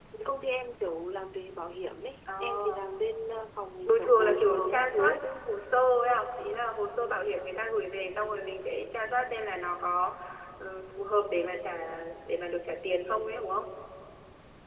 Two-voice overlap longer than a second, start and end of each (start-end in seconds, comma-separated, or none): 3.9-5.2